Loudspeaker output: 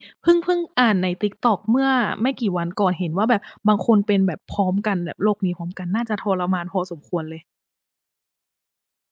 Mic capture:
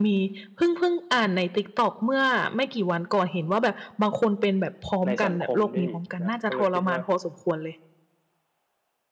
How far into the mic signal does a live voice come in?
5.0 s

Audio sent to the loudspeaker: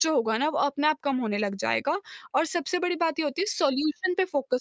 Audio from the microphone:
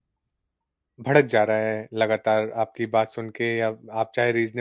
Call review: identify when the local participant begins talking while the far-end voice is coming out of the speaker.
1.1 s

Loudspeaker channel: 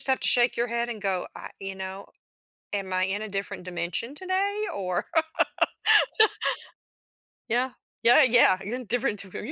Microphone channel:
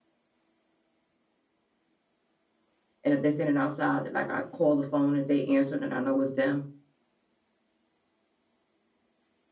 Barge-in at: 3.0 s

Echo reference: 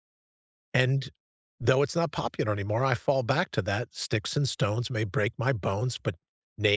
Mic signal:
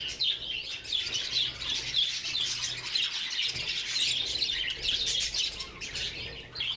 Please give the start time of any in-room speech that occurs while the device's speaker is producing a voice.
none

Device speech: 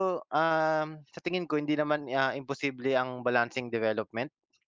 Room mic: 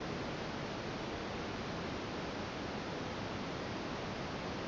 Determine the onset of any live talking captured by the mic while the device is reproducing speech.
none

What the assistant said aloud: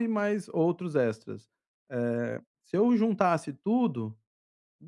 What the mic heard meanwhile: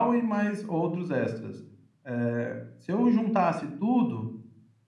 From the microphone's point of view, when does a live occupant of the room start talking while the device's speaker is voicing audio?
none

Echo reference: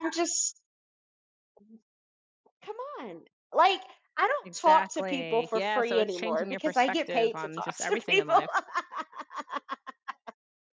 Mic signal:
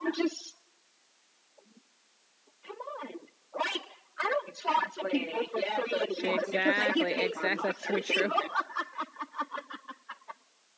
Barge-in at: 6.2 s

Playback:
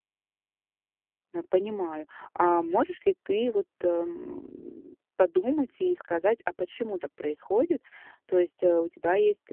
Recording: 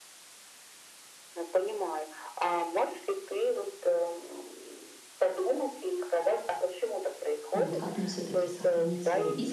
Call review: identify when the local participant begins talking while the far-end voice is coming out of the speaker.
7.5 s

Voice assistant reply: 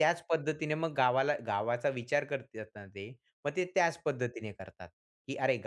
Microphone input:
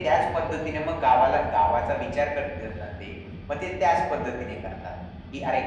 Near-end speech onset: none

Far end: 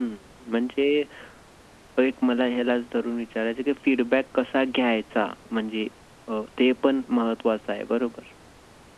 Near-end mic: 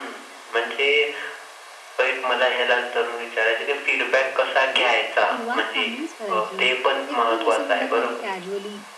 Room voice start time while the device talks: 4.7 s

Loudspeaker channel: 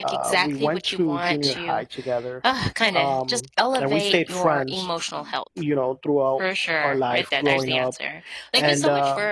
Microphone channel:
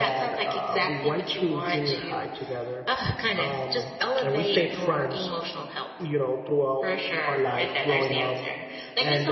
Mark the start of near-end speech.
none

